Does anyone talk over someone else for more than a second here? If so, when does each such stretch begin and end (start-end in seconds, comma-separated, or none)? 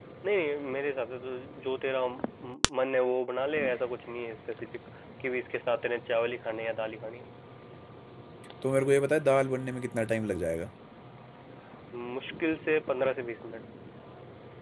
none